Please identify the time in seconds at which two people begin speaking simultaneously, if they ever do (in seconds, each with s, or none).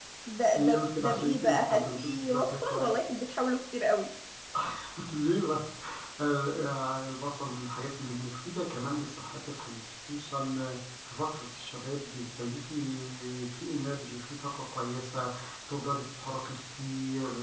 0.6 s